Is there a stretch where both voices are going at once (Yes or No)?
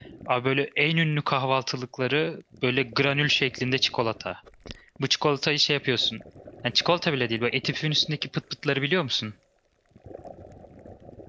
No